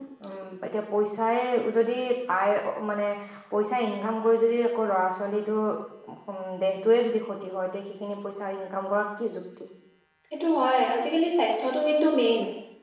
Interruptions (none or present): none